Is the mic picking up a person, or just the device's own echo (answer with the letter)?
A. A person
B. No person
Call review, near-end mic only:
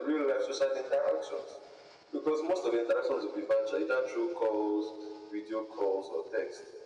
B